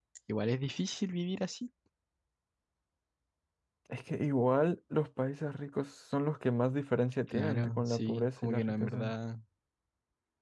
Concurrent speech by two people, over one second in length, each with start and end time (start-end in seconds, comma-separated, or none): 7.3-9.1